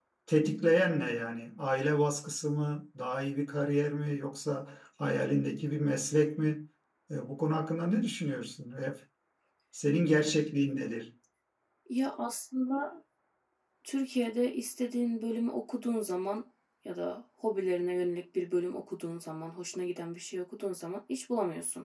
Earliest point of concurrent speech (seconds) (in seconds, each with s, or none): none